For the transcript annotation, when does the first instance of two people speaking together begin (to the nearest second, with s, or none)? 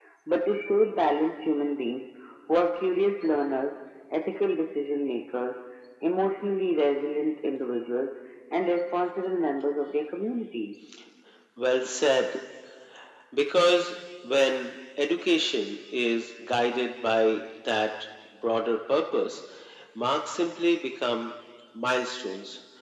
none